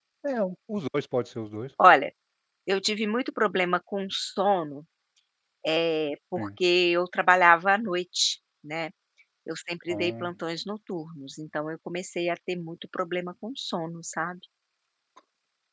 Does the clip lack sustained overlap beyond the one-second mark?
Yes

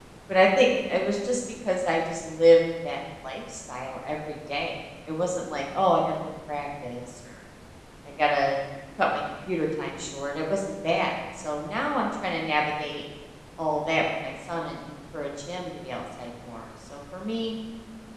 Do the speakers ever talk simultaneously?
No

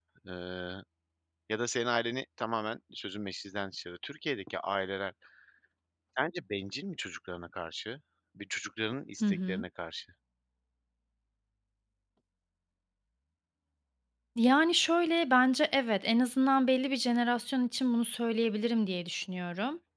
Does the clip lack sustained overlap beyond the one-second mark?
Yes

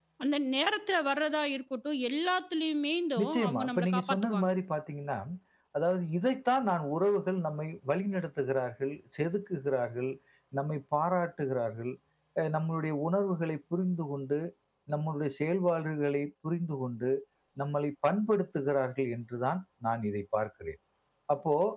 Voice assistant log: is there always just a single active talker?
No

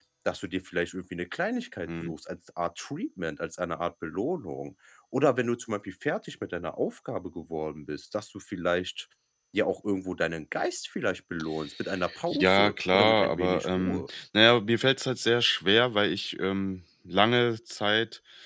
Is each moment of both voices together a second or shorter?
No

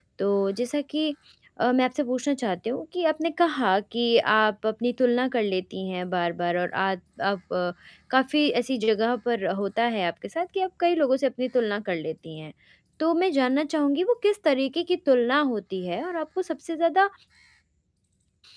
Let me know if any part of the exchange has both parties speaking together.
No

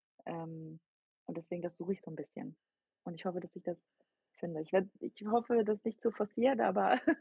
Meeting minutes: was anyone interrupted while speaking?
No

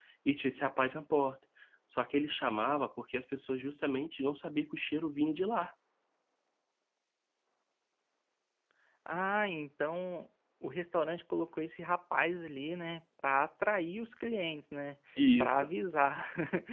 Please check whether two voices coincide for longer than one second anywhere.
No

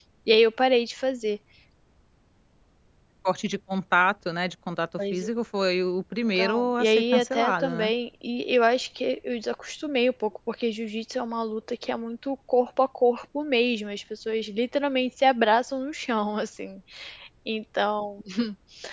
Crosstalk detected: Yes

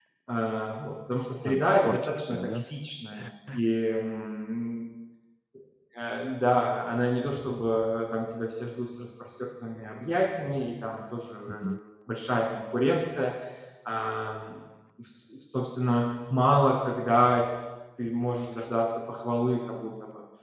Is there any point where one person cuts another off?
Yes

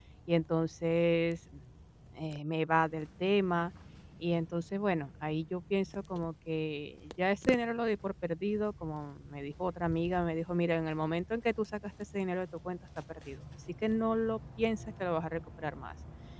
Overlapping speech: No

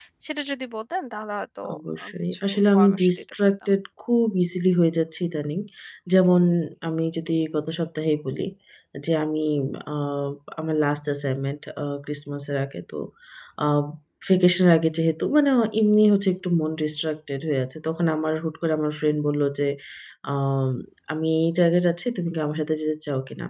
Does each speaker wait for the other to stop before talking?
No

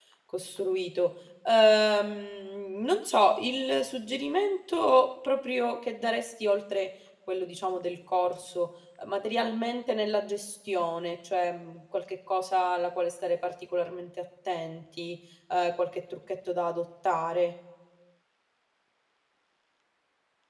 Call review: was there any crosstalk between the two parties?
No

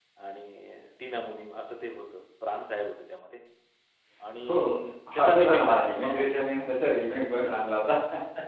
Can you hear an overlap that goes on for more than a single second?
Yes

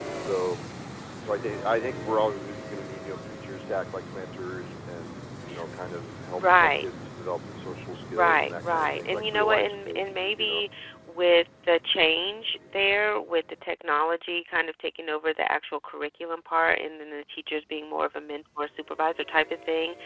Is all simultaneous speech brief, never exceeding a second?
No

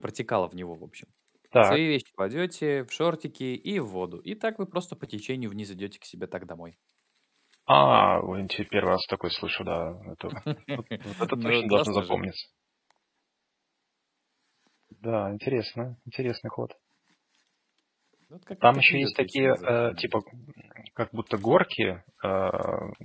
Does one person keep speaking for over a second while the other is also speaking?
Yes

